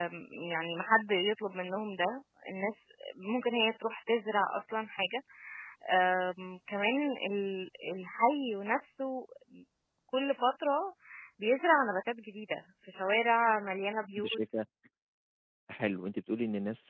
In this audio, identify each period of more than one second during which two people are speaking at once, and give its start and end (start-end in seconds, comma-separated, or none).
none